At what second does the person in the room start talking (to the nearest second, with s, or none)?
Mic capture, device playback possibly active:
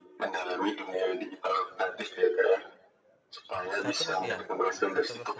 4 s